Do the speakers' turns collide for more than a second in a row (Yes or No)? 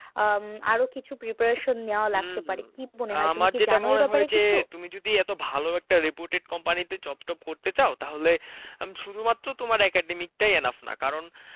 Yes